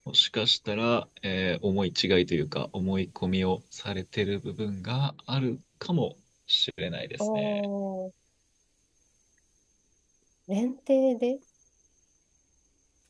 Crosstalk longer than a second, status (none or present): none